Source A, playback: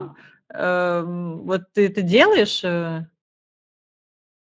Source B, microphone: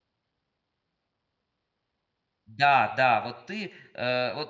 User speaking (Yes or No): Yes